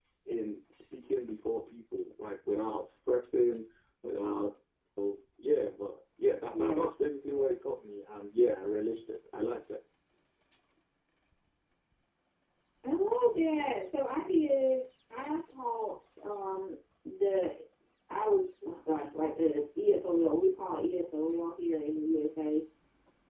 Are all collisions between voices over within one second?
Yes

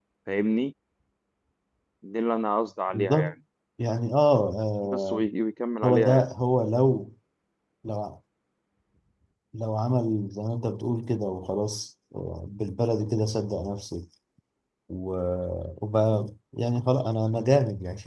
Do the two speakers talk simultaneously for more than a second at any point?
No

